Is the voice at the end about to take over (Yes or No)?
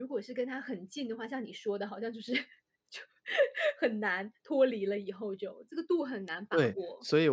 Yes